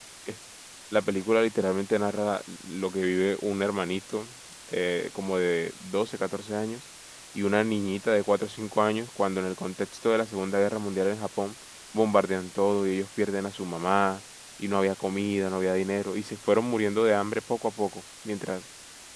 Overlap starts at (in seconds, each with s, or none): none